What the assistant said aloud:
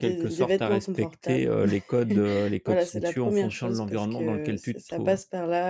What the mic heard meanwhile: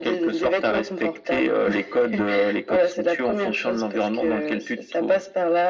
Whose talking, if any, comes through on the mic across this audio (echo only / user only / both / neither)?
echo only